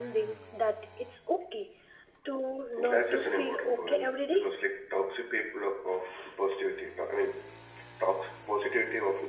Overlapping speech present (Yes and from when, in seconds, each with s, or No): Yes, from 2.8 s